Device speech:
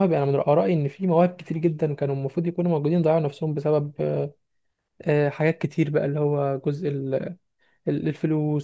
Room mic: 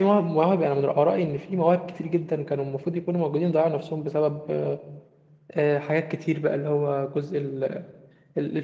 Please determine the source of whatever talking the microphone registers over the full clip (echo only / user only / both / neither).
echo only